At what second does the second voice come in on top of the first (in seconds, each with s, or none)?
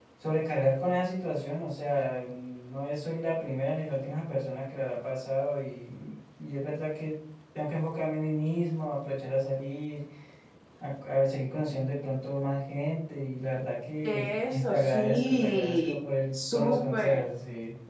14.0 s